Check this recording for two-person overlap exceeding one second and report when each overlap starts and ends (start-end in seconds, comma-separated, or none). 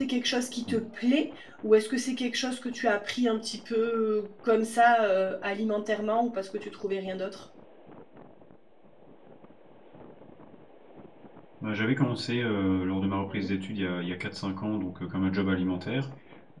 none